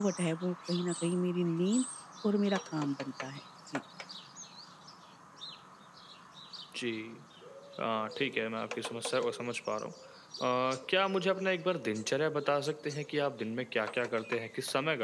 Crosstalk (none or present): none